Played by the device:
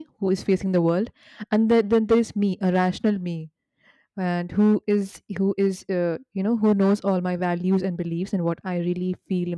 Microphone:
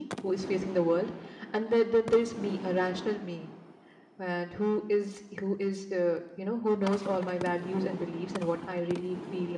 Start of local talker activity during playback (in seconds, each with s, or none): none